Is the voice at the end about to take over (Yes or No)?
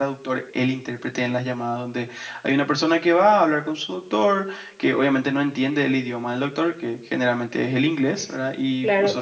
Yes